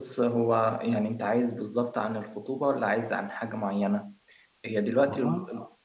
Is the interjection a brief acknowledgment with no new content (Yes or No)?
Yes